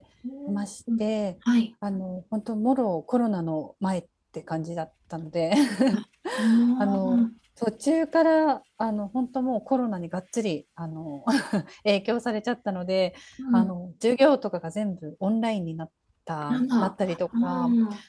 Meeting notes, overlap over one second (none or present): present